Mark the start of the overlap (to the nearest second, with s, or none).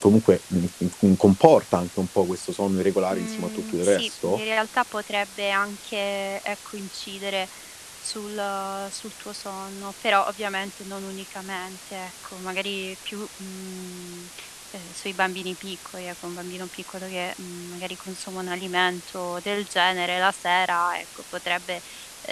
3 s